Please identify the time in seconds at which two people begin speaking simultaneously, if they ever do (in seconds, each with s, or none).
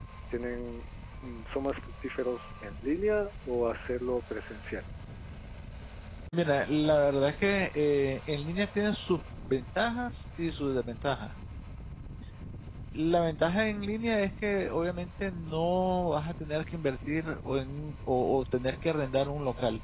none